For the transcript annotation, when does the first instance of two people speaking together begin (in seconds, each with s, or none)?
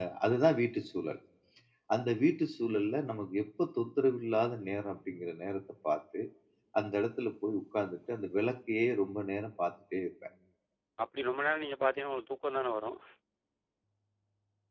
none